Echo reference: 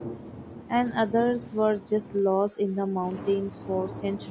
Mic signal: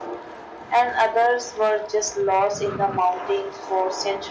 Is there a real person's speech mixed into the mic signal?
No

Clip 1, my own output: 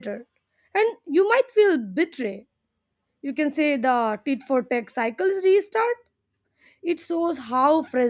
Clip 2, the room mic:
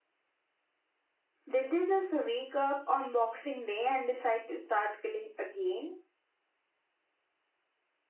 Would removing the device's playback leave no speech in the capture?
No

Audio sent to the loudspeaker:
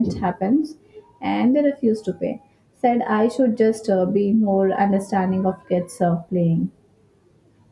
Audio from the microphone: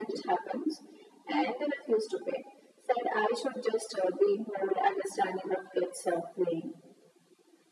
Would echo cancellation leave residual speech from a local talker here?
No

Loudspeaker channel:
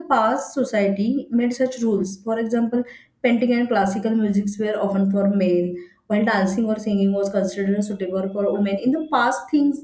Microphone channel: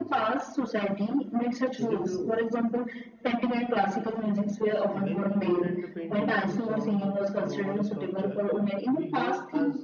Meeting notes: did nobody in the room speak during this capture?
No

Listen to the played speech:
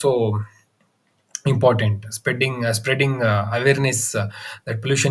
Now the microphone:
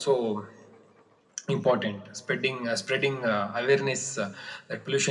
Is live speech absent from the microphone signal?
Yes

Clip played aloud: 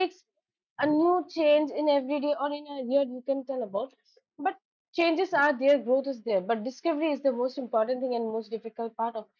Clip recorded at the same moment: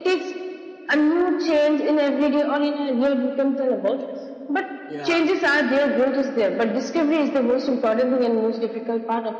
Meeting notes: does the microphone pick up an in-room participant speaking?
Yes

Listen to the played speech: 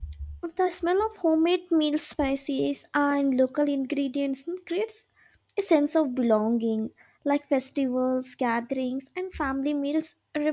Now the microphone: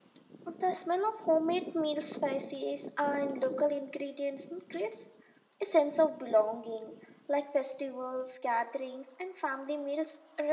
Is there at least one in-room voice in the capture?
No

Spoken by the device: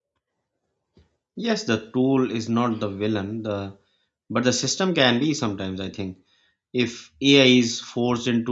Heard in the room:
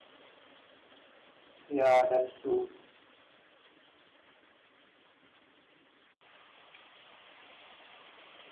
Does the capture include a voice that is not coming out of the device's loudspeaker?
Yes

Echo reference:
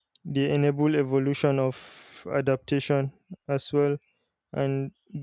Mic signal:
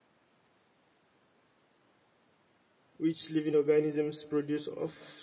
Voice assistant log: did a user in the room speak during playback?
Yes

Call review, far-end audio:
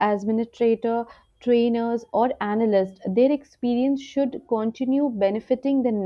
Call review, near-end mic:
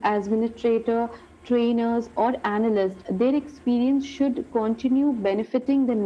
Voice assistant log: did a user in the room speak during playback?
No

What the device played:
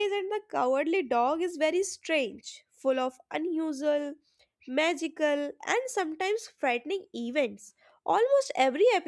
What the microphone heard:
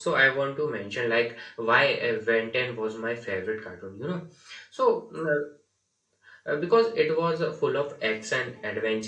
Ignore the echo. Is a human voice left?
Yes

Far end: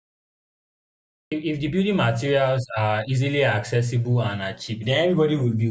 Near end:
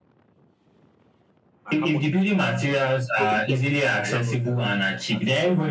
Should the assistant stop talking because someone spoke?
Yes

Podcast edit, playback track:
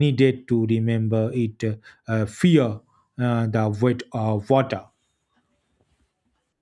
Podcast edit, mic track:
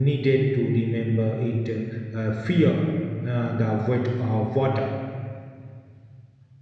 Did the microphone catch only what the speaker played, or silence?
Yes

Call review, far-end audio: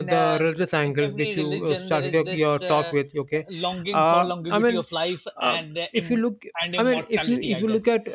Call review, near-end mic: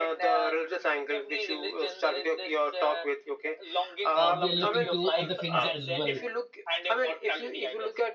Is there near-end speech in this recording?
Yes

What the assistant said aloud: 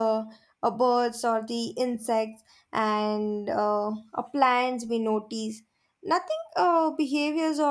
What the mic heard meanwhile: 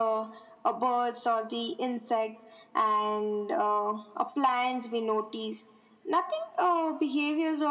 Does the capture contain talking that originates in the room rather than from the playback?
No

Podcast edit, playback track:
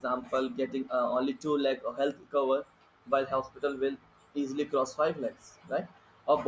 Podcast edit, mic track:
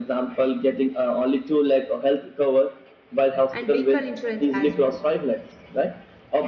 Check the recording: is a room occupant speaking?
Yes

